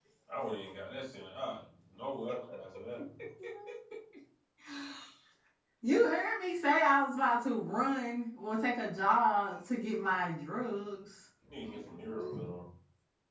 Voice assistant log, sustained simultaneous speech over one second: none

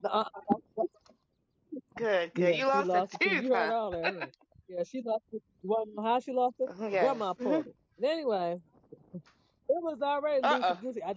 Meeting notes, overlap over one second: present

